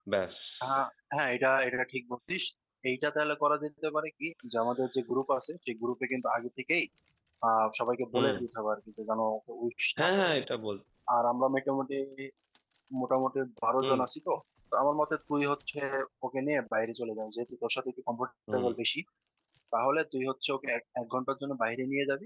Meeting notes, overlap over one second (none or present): none